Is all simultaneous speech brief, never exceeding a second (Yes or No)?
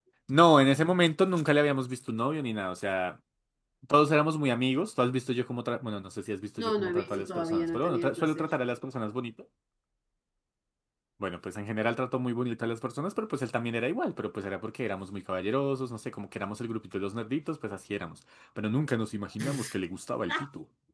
No